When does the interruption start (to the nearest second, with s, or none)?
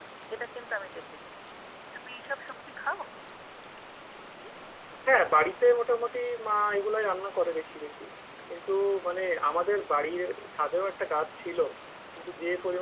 none